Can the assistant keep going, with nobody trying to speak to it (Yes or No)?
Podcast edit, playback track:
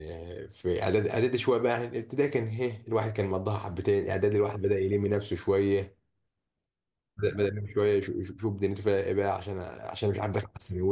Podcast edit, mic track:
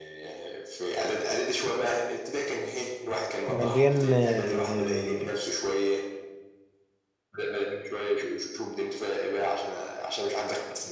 No